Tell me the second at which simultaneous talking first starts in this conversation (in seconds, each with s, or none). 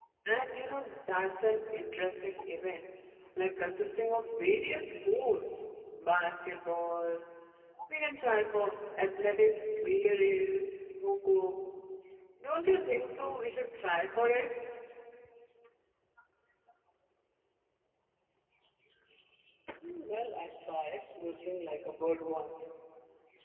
none